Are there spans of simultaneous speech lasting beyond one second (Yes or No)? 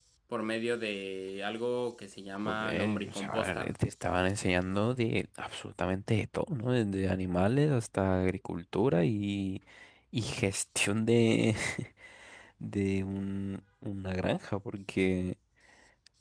Yes